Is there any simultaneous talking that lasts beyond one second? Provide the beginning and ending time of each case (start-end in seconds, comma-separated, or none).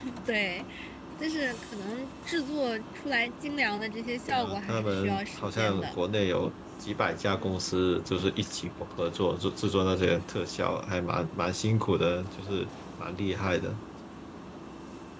4.3-6.0